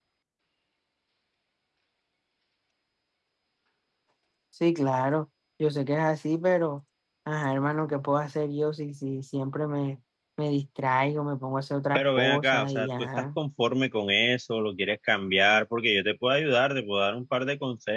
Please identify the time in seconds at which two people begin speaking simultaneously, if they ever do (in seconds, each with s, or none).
11.9 s